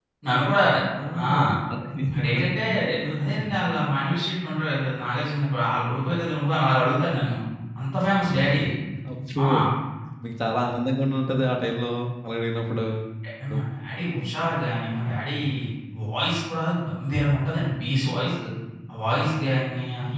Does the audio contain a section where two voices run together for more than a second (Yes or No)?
No